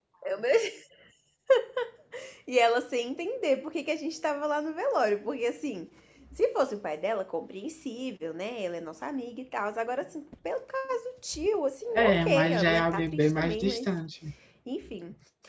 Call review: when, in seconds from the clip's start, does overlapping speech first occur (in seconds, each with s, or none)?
11.9 s